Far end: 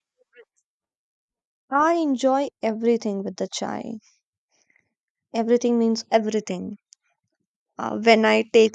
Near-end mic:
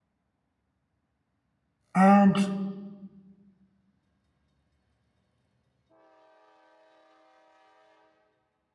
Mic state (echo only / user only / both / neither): user only